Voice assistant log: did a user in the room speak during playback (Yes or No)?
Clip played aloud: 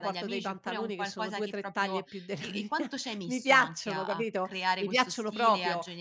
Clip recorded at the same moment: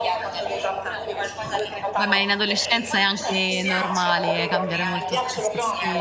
Yes